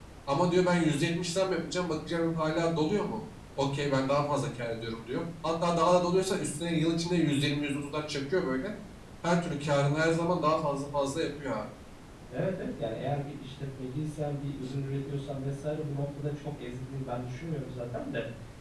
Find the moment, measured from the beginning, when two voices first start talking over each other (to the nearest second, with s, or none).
none